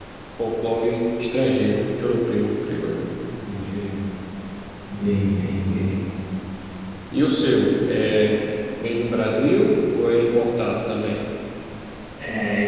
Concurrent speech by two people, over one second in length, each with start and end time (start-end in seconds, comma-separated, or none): none